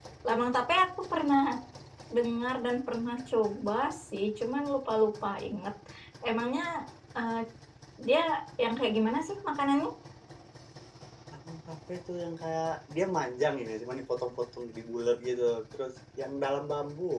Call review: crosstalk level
none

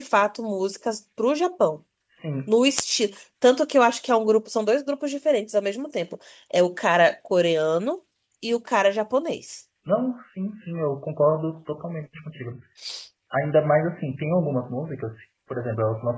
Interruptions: none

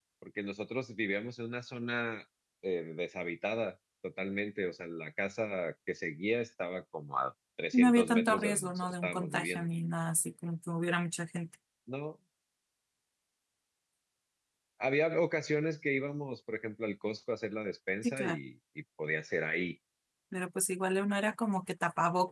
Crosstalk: present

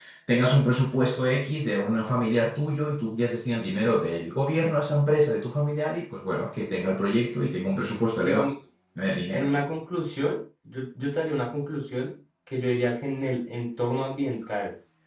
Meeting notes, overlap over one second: none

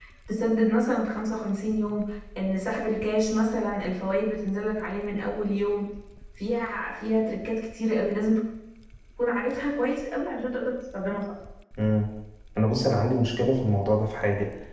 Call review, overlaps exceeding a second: none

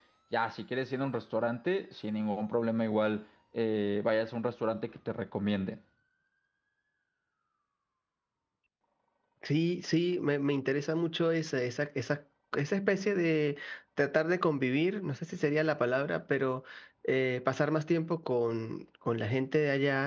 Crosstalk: none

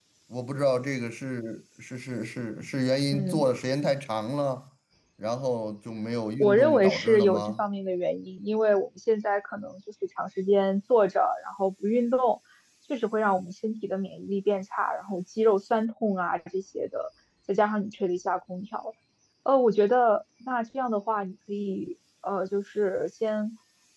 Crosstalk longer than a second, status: present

